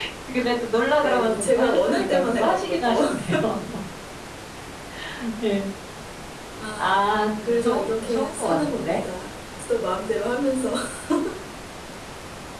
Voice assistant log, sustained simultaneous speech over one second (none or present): present